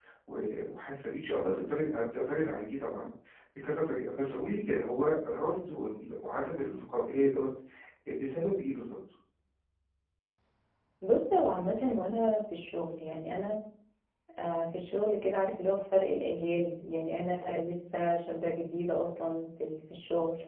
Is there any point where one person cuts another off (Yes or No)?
No